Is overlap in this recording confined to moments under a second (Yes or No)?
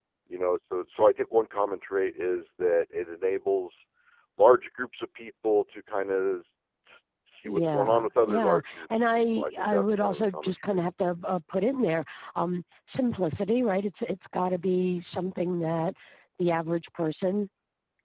No